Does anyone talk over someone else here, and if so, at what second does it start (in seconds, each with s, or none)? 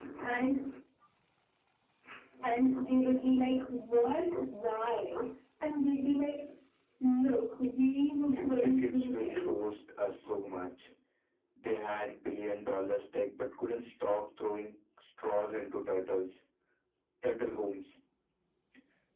8.3 s